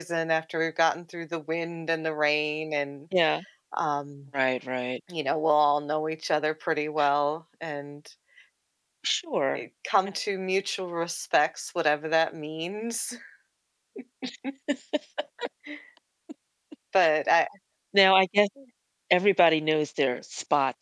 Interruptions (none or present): none